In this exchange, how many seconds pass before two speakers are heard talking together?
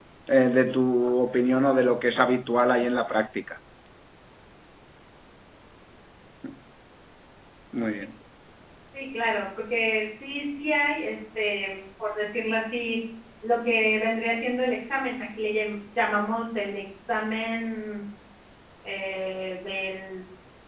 none

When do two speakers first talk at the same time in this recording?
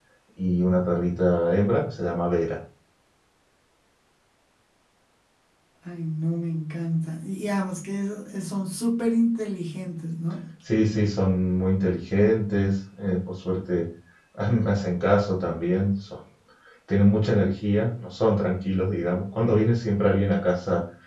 none

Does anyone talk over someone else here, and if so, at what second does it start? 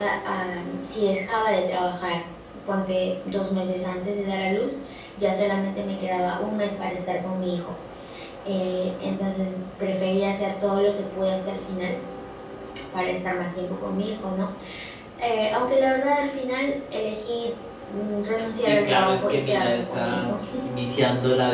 19 s

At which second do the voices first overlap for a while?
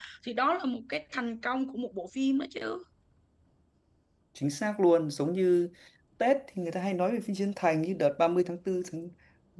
none

